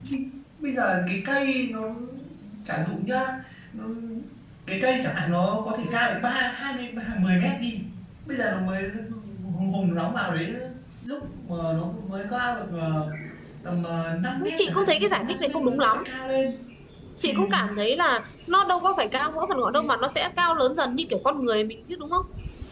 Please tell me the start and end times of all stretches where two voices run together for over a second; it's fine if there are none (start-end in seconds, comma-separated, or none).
14.6-16.0